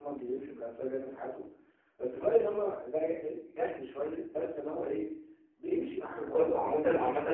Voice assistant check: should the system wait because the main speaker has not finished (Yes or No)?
No